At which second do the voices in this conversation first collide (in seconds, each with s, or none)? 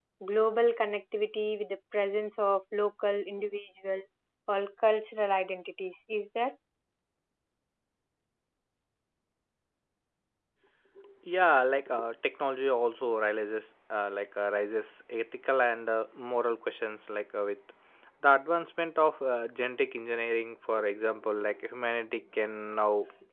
none